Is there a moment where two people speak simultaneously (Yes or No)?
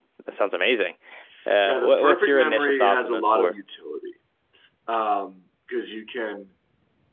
Yes